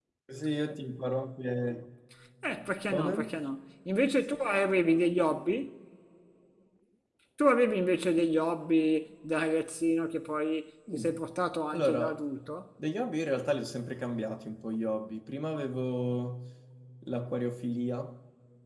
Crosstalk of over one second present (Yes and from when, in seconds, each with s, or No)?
No